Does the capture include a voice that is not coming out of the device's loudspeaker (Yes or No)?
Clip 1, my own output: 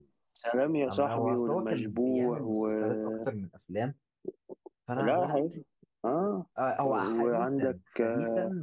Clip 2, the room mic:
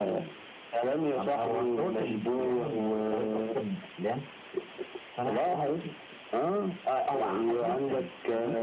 No